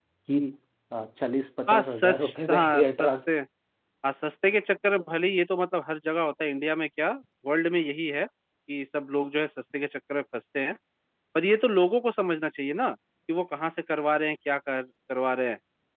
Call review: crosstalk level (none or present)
present